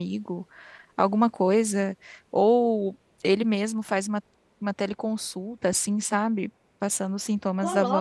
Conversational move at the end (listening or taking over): taking over